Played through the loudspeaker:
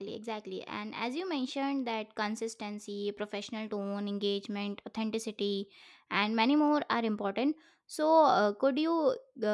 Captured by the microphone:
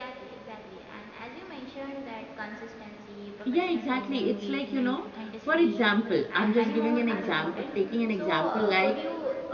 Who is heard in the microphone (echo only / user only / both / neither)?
both